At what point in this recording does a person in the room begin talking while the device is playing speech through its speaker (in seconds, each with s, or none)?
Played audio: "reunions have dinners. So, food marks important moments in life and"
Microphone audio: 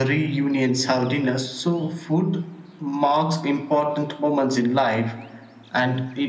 none